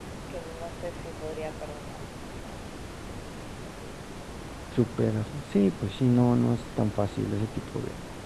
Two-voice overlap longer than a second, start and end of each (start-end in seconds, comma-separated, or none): none